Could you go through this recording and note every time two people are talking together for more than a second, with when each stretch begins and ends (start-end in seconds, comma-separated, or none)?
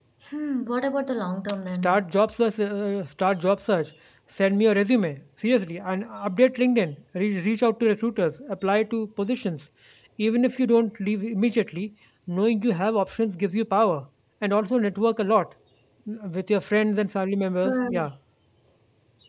none